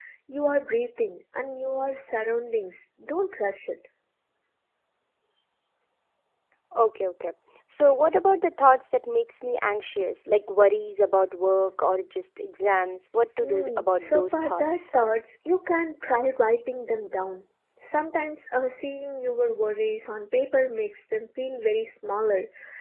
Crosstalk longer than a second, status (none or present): present